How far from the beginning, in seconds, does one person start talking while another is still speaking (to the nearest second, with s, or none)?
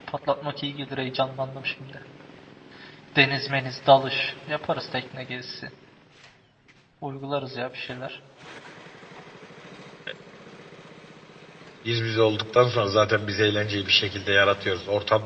none